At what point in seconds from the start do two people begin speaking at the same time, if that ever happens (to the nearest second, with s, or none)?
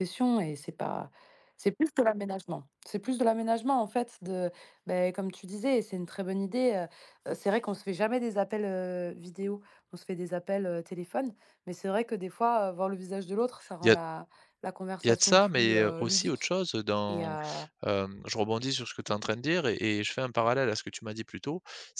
15 s